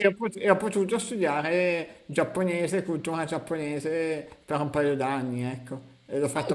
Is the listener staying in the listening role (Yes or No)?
No